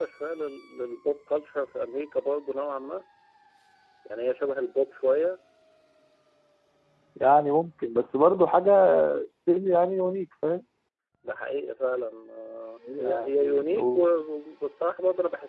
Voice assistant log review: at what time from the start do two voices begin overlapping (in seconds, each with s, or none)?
12.9 s